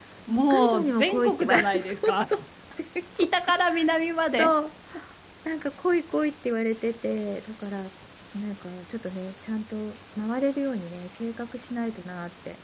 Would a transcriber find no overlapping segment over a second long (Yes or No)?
No